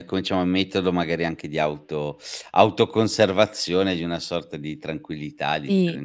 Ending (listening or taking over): taking over